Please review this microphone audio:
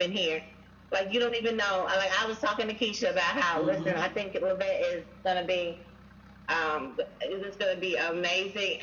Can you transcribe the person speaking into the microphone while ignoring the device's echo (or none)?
Mm-hmm.